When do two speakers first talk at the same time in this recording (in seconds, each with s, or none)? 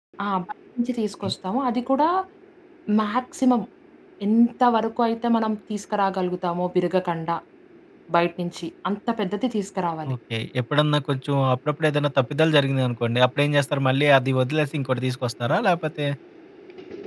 none